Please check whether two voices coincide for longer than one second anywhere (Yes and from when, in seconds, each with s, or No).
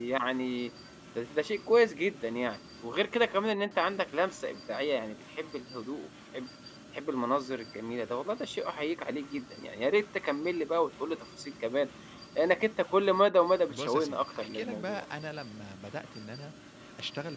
Yes, from 13.7 s